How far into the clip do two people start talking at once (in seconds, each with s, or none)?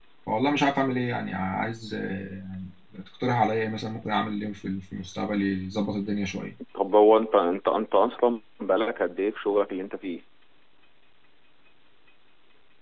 none